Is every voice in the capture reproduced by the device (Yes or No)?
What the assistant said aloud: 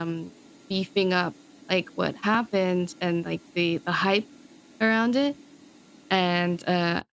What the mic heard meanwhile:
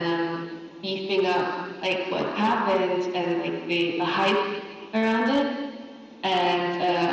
Yes